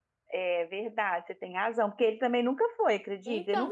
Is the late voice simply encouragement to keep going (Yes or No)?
No